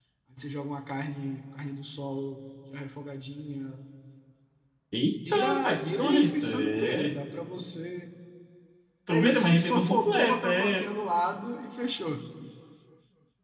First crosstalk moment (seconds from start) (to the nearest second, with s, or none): 5 s